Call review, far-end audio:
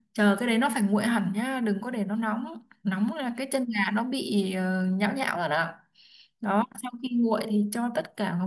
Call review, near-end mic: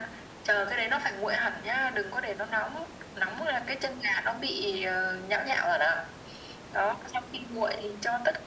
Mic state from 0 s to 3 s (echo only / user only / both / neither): echo only